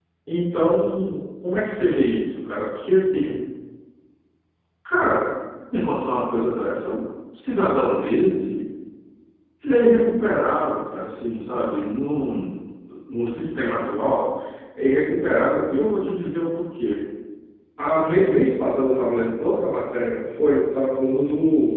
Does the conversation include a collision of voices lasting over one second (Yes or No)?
No